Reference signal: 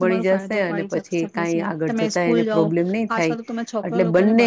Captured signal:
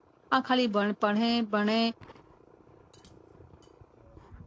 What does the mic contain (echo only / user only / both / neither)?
user only